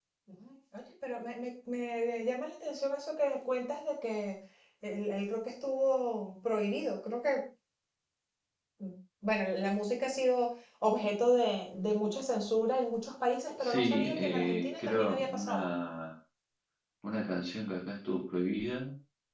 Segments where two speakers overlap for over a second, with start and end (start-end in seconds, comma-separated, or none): 13.6-15.7